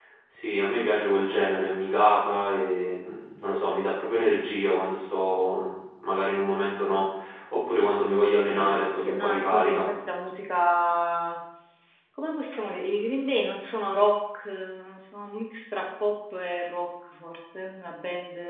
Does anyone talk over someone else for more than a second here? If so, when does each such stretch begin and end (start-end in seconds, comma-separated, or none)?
8.4-9.9